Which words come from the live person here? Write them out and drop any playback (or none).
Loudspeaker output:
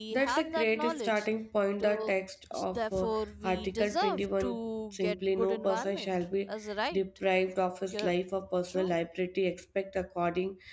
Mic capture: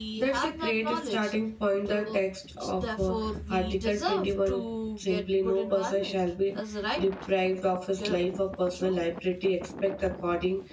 none